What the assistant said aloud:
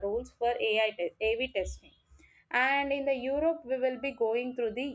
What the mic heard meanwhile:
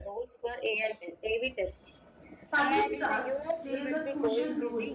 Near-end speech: present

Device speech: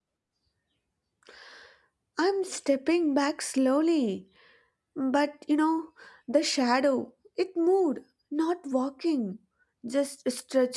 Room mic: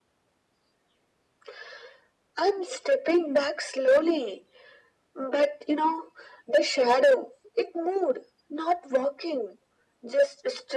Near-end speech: none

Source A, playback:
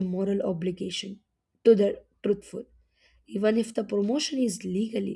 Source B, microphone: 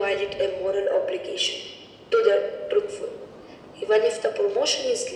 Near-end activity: none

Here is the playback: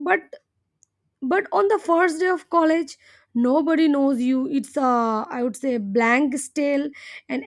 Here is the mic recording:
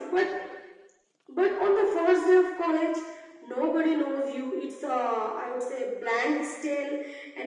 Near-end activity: none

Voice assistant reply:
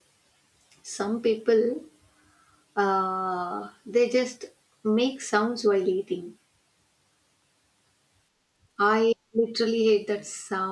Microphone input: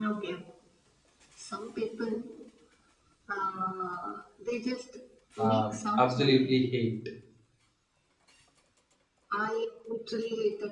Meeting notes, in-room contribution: present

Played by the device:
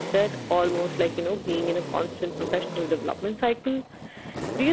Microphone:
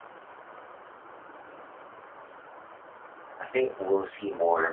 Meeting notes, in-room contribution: present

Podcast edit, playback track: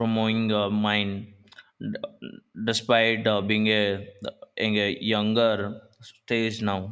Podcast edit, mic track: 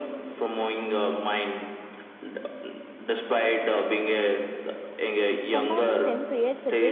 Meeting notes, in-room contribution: present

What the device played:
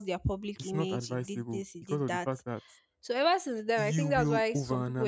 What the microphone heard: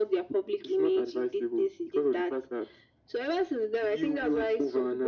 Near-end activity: none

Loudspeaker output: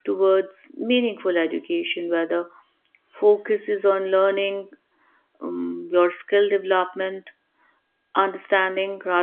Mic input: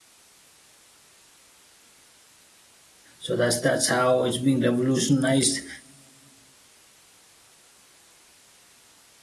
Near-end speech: present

